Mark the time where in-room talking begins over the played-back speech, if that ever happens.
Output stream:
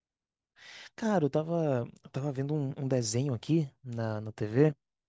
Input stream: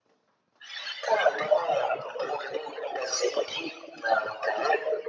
none

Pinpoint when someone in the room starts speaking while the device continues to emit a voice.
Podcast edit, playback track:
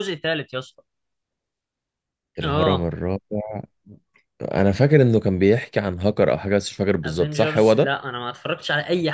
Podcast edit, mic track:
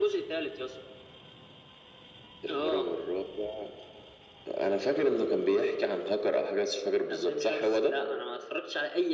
none

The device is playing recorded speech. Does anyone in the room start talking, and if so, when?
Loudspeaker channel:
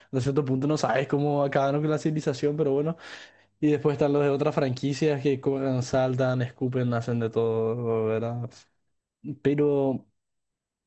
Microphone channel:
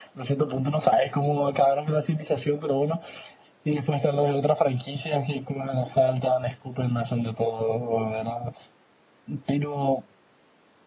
none

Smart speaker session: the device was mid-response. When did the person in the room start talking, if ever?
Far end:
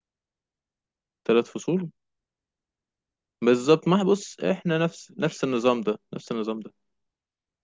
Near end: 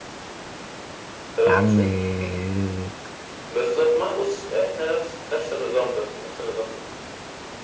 1.5 s

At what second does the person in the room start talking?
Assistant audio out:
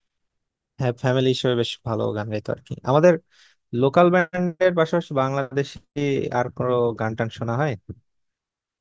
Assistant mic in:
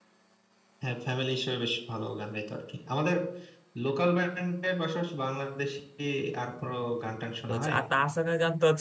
7.4 s

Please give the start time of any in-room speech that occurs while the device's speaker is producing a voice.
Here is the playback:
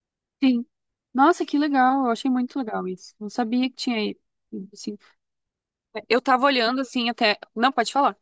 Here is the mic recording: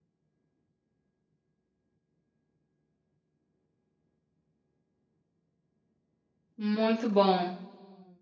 6.6 s

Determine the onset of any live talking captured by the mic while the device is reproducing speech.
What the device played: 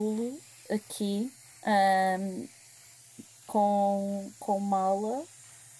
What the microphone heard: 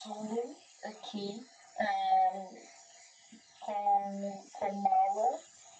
none

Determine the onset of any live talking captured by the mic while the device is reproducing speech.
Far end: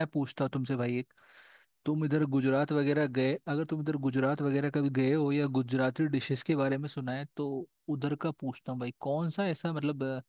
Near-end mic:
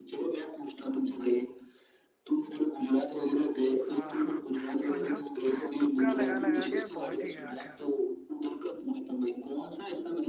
3.8 s

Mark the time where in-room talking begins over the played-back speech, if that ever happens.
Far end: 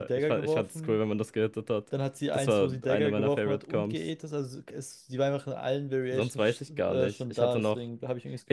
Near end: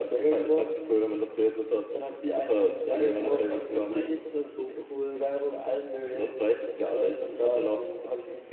3.2 s

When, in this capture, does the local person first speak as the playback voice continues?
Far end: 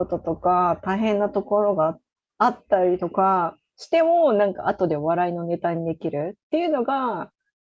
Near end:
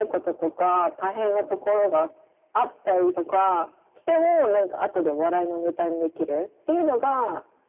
none

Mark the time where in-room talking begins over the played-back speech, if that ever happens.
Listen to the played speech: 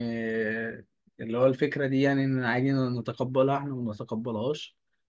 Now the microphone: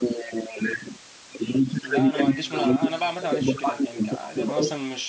1.8 s

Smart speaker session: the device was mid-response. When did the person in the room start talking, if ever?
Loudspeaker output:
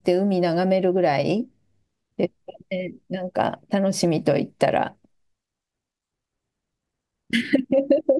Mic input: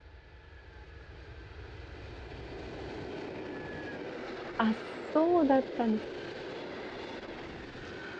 4.6 s

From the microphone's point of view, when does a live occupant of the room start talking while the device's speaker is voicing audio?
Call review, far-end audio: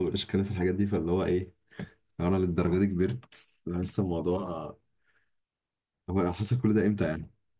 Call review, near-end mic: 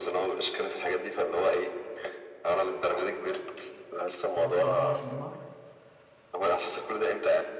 4.3 s

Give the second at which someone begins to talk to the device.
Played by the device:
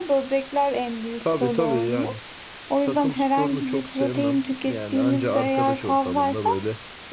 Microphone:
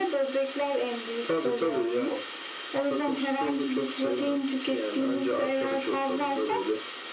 none

